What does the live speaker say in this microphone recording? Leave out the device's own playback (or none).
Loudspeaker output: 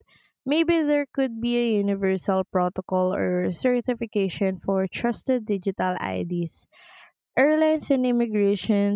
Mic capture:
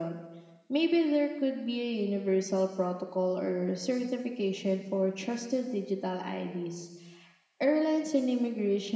none